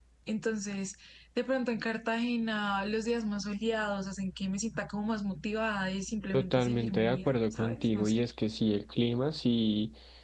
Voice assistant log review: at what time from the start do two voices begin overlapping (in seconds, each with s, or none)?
6.3 s